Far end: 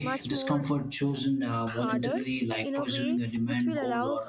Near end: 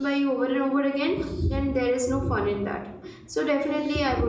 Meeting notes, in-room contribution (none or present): present